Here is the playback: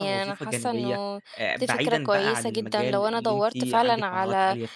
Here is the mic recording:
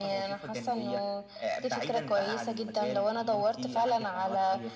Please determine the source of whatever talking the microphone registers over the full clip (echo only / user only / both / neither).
echo only